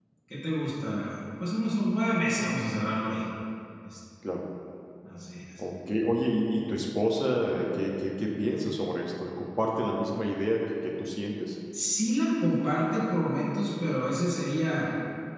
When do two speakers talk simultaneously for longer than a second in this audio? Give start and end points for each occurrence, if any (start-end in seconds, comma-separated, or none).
none